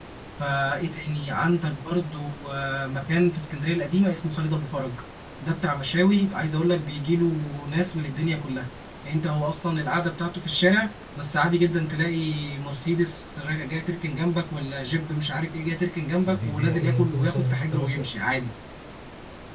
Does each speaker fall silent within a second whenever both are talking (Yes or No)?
No